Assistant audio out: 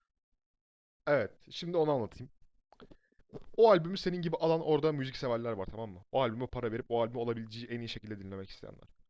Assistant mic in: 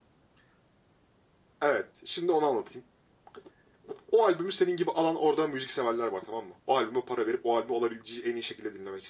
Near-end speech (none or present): none